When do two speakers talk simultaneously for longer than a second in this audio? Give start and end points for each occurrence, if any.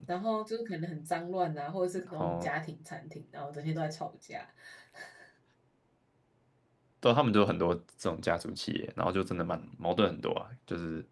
none

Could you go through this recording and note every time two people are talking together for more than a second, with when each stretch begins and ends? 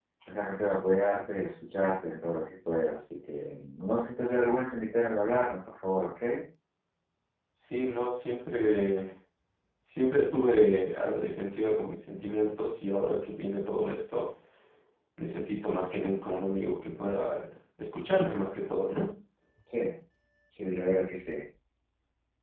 none

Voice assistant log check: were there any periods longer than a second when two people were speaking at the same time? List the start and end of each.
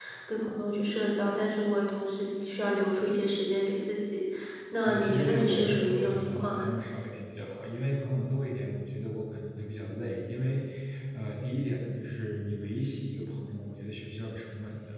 4.8-6.7

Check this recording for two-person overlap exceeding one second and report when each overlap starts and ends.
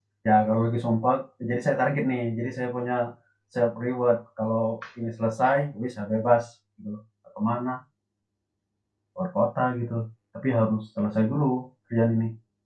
none

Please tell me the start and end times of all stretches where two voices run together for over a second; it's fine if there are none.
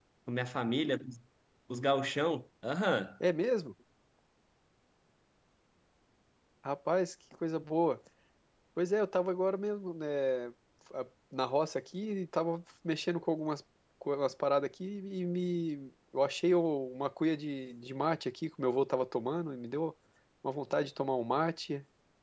none

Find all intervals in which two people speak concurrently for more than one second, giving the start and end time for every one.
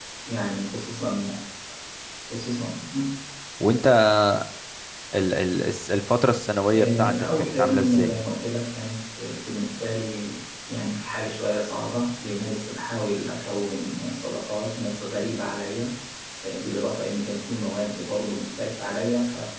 6.7-8.2

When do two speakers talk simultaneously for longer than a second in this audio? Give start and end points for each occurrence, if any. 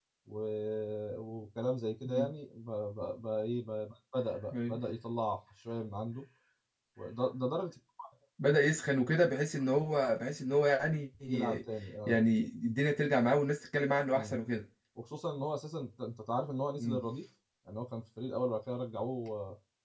none

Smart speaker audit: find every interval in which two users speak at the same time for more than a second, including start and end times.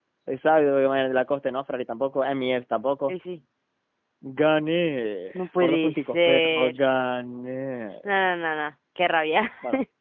5.3-6.7

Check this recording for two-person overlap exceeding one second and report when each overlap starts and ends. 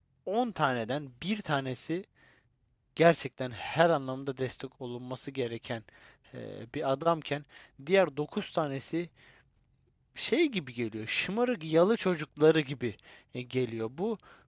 none

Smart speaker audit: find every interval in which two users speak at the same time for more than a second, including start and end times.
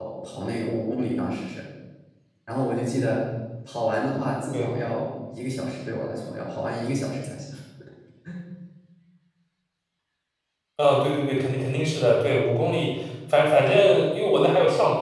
none

